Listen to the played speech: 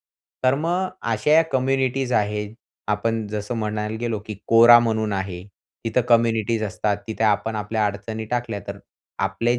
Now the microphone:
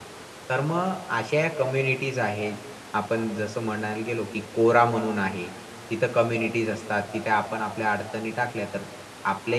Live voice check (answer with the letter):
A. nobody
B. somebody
A